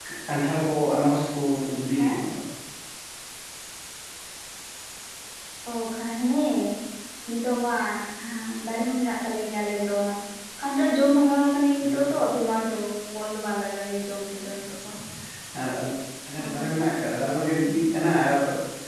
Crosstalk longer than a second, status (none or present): none